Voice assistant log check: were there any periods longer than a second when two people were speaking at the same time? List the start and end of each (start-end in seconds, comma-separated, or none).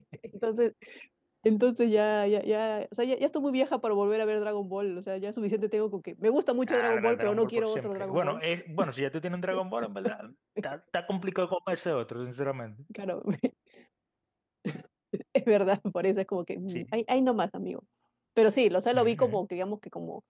6.7-8.4